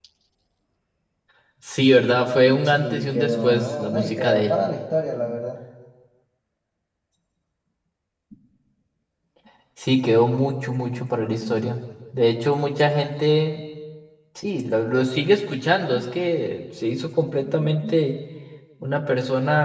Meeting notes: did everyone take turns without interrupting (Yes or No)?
No